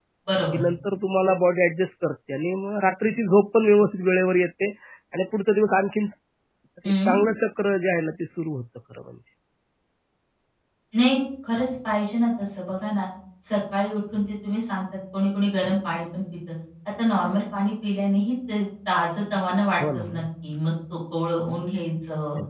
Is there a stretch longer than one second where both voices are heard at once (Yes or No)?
No